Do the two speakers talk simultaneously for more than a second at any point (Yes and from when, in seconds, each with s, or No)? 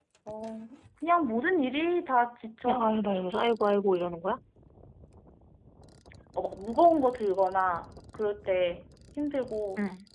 No